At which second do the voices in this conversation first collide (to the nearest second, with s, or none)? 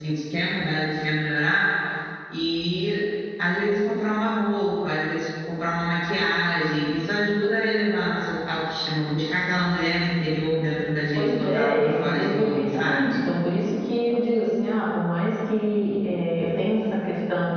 11 s